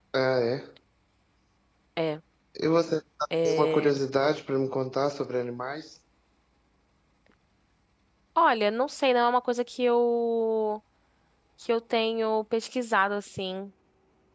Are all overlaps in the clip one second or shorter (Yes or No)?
Yes